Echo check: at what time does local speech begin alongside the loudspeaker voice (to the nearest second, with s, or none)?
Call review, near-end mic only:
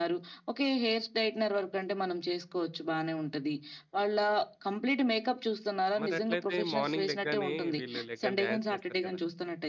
6 s